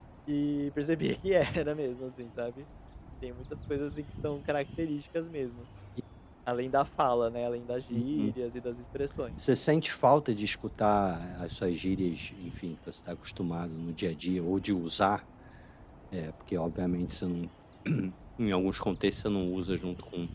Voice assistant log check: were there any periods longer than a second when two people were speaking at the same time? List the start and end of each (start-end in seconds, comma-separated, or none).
none